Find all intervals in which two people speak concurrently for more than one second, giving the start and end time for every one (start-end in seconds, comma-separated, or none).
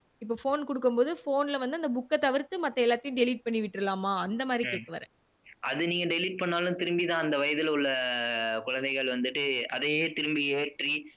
none